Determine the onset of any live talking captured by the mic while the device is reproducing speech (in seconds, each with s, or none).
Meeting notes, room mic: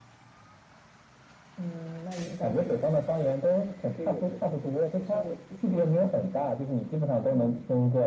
none